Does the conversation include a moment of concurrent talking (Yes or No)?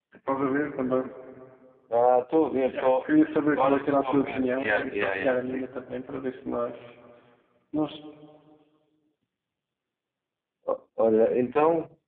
Yes